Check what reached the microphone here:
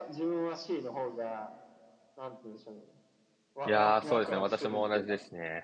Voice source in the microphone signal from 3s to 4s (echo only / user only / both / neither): both